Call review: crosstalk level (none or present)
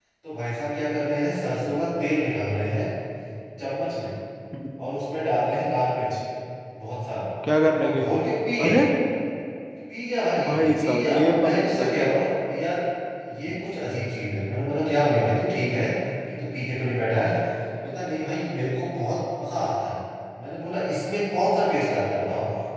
present